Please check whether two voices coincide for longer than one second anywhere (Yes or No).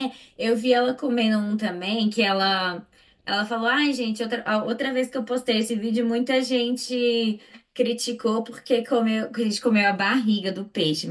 No